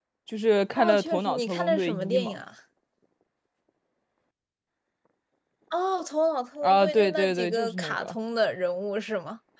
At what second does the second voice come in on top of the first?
0.8 s

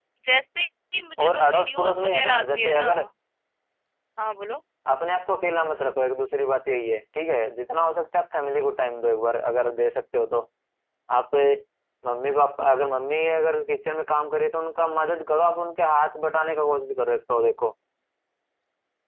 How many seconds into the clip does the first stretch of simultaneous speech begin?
1.2 s

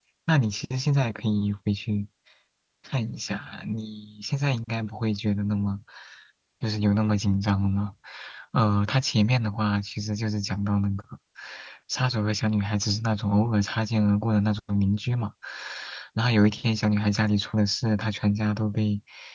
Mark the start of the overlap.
none

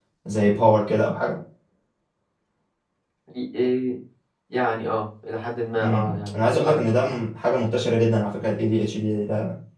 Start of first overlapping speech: 5.8 s

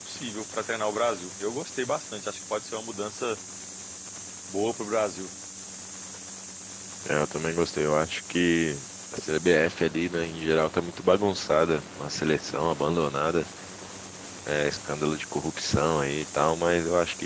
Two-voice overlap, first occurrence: none

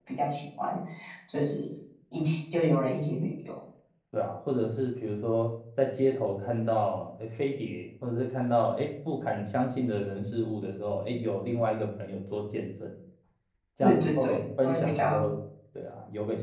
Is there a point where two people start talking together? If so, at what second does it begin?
13.8 s

